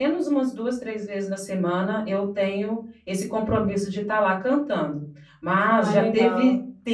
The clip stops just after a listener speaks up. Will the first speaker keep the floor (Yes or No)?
Yes